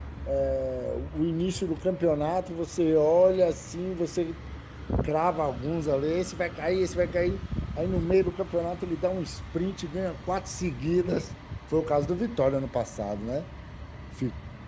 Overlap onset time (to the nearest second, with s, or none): none